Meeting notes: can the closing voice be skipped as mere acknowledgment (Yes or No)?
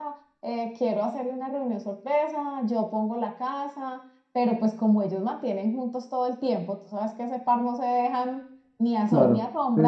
No